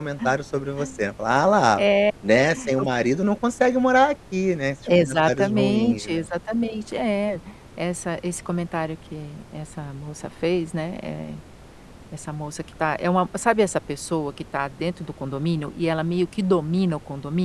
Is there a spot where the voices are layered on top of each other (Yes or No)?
Yes